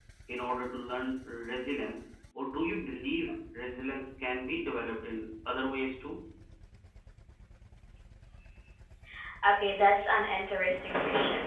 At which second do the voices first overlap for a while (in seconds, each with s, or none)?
none